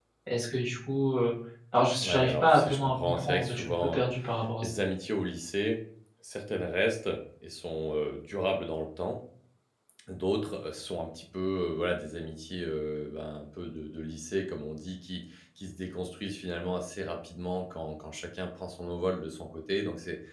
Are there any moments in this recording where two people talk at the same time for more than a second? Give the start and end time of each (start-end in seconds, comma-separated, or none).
2.0-4.0